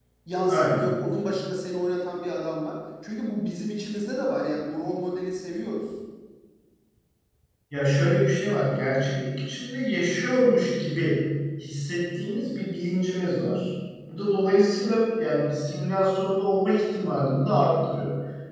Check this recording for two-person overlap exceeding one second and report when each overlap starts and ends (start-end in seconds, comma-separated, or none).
none